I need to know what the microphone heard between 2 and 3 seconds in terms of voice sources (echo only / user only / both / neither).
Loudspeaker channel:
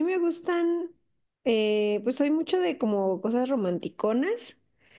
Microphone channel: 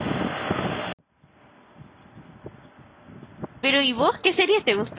neither